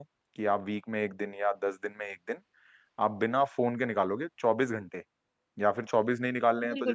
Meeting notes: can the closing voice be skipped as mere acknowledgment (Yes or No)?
No